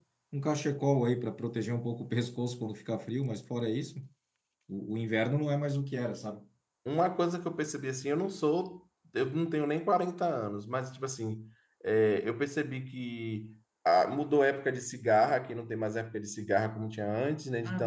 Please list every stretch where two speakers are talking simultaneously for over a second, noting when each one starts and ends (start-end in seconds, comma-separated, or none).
none